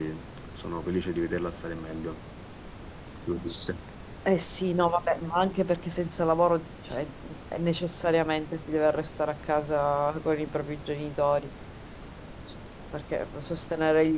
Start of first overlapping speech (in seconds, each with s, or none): none